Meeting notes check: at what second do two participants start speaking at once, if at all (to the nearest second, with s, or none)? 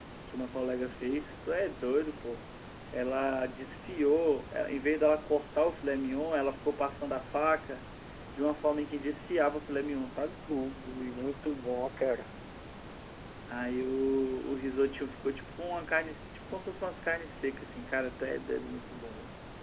none